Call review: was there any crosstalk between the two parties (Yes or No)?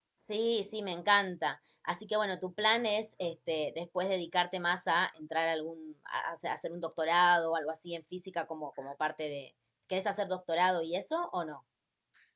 No